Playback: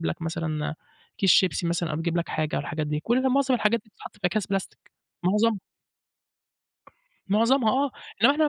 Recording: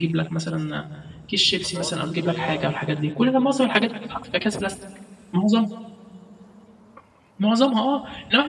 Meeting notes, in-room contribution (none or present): present